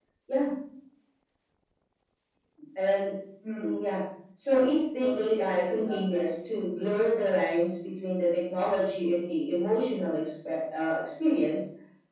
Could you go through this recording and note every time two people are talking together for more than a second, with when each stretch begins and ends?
5.0-6.4

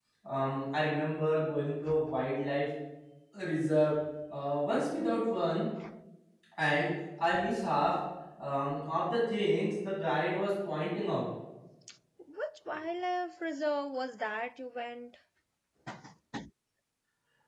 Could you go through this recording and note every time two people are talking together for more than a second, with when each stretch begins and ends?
none

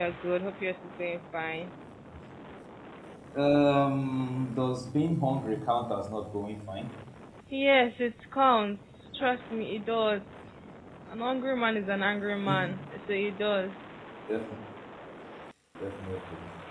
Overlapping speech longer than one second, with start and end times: none

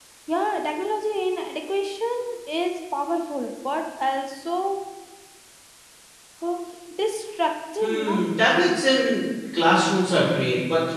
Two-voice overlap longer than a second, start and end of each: none

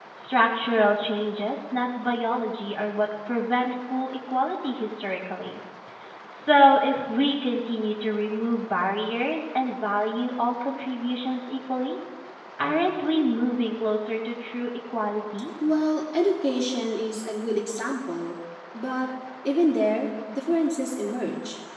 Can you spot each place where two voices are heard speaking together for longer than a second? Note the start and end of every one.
none

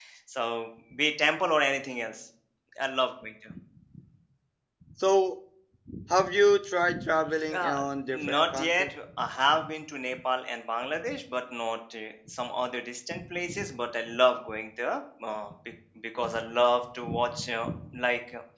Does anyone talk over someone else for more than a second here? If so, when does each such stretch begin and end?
7.5-8.9

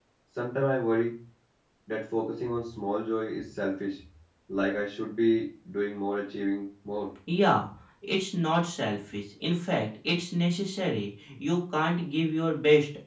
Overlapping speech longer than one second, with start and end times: none

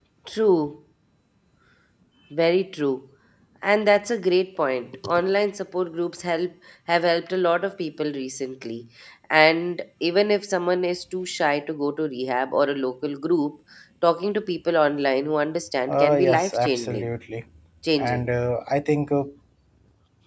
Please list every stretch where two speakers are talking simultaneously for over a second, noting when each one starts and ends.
15.9-17.1

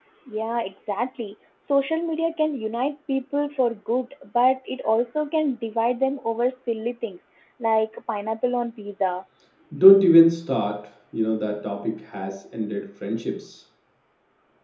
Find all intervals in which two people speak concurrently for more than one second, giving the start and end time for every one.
none

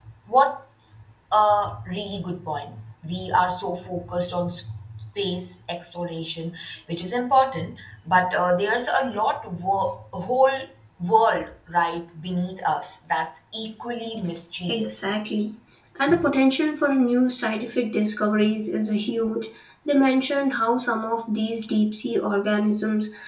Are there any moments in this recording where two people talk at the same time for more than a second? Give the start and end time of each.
none

